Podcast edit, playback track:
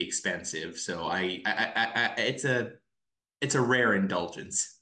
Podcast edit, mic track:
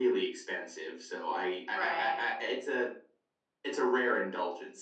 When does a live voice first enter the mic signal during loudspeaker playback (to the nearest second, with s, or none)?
2 s